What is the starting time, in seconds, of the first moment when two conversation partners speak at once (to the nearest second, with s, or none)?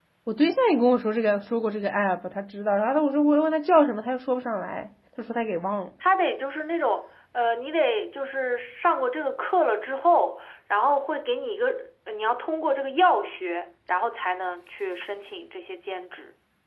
none